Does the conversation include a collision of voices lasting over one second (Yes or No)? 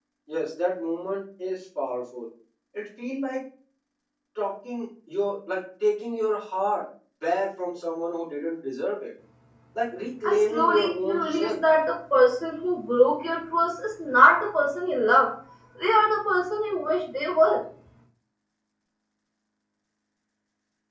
Yes